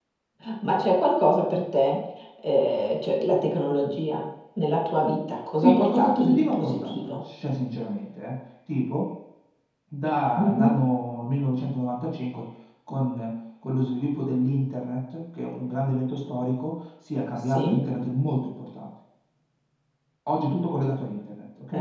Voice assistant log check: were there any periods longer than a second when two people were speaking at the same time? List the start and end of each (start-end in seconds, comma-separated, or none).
5.6-7.2